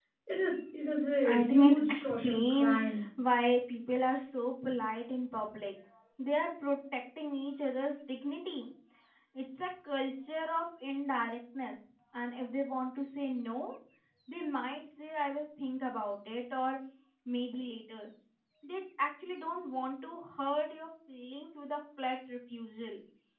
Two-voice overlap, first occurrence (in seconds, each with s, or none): 1.2 s